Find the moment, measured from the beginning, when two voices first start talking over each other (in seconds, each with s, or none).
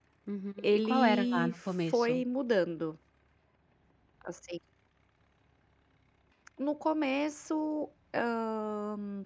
0.6 s